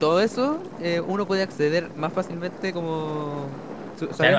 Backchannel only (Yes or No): No